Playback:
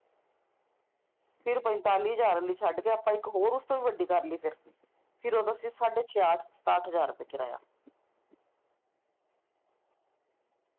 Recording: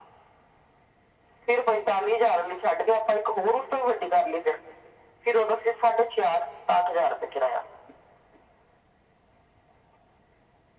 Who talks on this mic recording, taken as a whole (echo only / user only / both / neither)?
echo only